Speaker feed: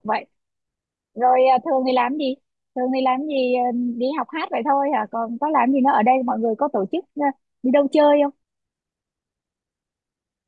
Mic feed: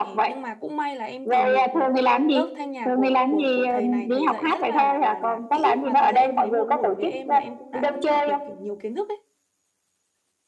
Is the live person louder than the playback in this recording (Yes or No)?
No